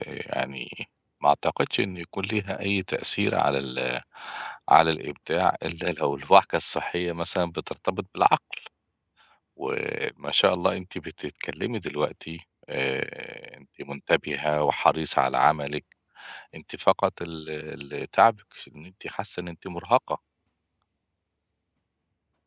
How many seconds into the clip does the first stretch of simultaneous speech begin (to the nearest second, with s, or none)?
none